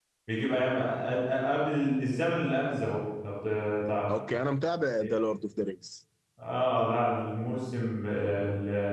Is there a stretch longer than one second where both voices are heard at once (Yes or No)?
No